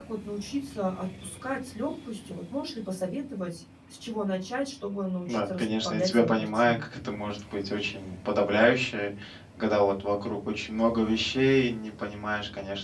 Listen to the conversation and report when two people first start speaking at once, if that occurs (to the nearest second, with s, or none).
5 s